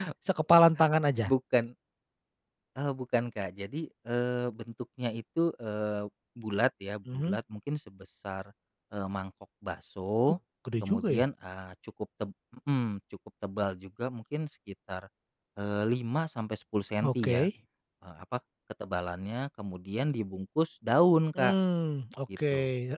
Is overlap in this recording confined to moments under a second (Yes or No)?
Yes